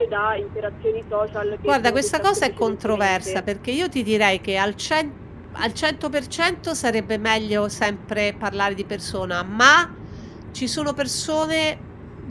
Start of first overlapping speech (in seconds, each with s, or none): 1.7 s